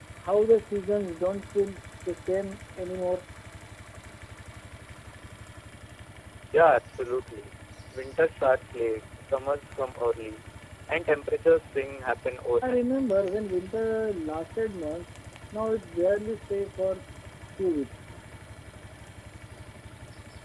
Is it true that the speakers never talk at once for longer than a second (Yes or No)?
Yes